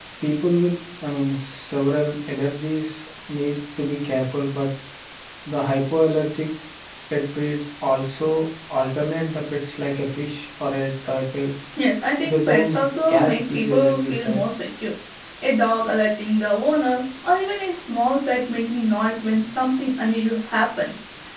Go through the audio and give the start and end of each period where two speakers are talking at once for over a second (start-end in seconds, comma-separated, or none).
12.2-14.4